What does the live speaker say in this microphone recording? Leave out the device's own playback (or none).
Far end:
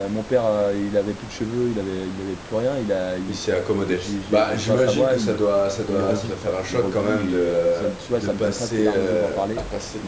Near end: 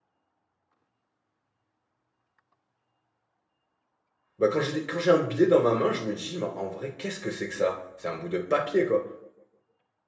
Bah quand j'ai des- quand j'ai un billet dans ma main, je me dis, mais en vrai, qu'est-ce que c'est que ça? C'est un bout de papier, quoi.